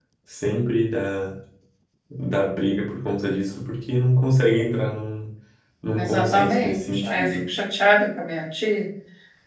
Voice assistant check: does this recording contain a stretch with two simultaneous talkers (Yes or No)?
Yes